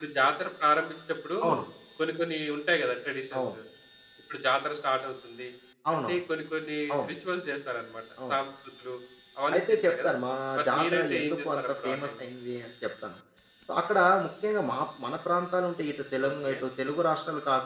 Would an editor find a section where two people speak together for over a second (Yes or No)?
Yes